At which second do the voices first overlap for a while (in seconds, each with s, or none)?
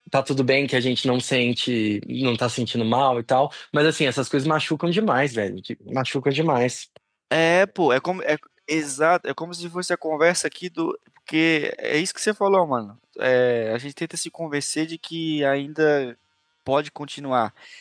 none